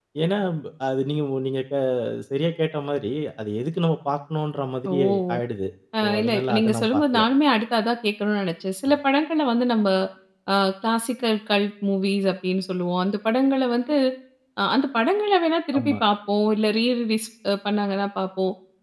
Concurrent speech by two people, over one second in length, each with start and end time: 6.0-7.2

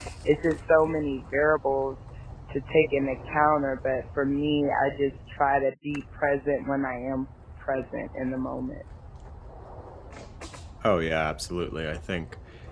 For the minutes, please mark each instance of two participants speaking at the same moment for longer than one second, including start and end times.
none

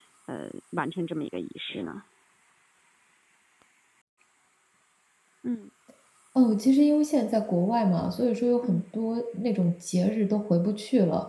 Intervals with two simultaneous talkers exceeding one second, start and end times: none

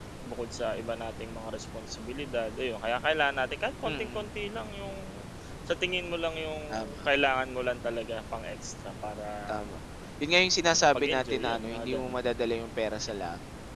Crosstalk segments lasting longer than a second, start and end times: 10.9-12.2

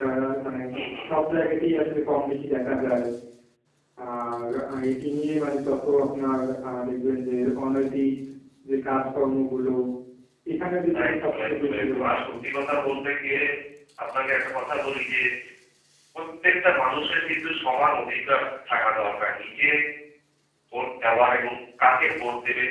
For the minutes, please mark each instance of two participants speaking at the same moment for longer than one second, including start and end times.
11.1-12.3

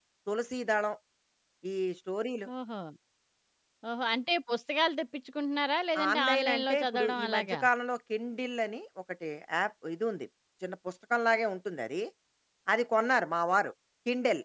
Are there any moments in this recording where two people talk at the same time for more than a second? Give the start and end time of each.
6.1-7.6

